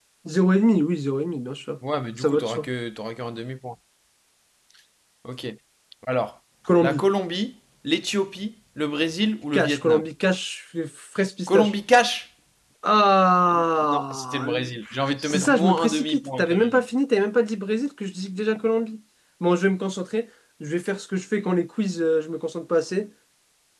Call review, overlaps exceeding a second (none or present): present